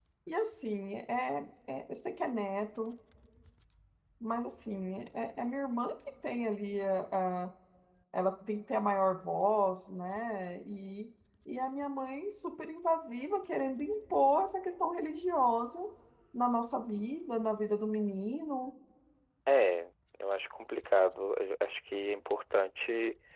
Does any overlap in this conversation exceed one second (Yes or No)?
No